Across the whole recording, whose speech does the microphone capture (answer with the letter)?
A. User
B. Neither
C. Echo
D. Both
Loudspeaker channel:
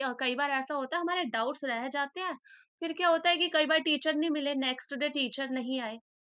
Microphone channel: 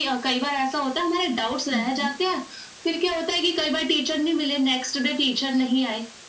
D